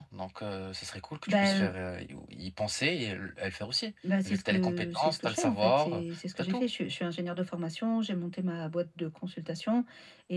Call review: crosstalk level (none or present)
present